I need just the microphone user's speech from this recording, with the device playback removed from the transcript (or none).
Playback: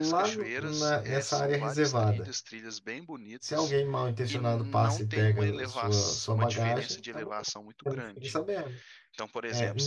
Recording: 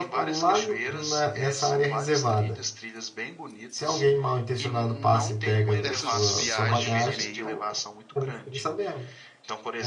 dessas viagens meio